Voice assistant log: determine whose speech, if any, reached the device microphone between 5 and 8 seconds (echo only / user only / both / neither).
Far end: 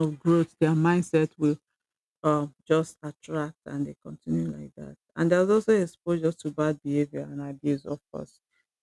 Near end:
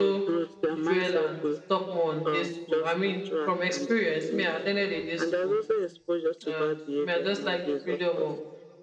both